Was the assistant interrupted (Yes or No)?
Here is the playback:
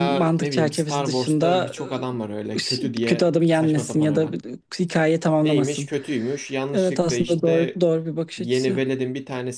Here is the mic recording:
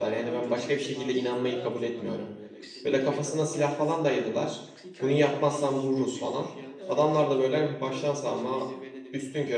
Yes